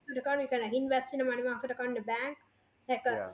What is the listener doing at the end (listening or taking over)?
listening